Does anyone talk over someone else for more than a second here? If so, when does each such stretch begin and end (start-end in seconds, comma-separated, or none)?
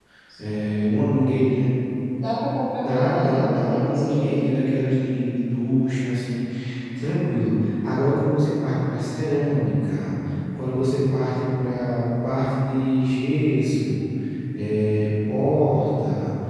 2.8-4.5